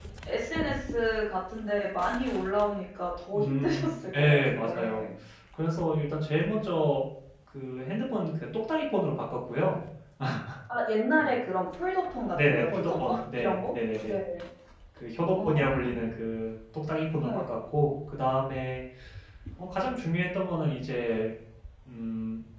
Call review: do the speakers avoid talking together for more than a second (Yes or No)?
No